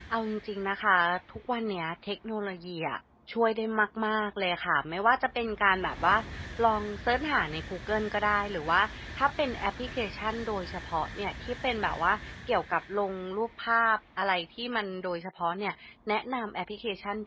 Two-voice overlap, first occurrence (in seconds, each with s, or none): none